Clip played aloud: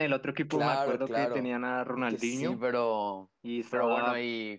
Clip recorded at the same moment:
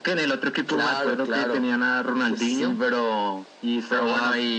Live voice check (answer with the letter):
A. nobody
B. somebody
A